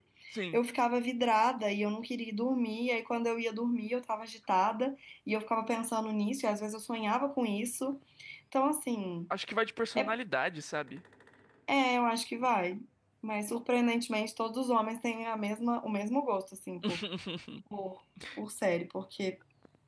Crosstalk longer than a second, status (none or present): none